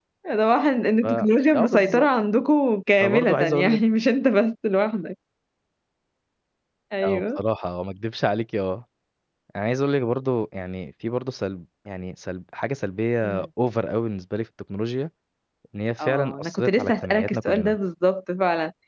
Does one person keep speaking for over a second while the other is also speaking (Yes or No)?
Yes